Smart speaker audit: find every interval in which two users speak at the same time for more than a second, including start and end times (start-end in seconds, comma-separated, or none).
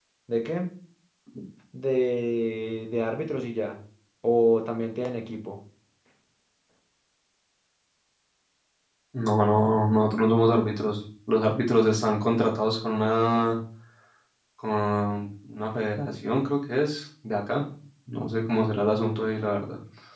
none